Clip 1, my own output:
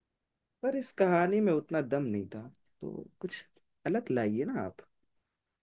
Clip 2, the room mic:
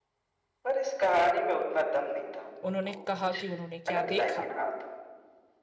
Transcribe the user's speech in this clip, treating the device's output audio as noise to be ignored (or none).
उन्होंने कहा कि उन्होंने क्या देखा